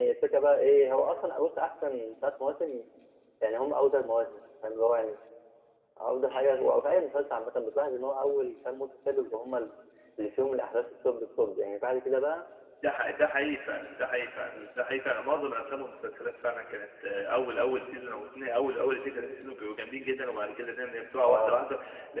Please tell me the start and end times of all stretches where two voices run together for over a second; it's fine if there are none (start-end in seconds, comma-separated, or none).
none